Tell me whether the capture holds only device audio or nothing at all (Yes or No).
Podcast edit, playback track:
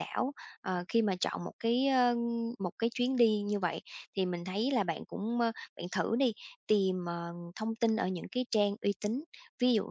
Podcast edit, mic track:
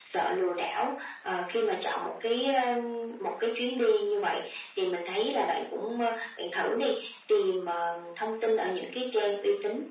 Yes